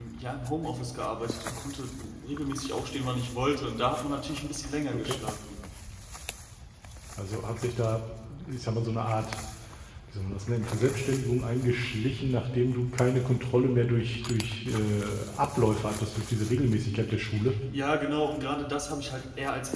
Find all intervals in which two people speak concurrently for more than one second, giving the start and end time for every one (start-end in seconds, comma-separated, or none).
none